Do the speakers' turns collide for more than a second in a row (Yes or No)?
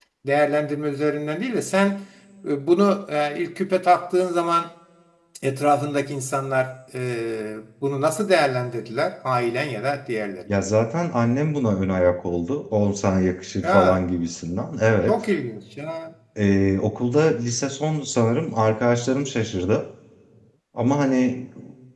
No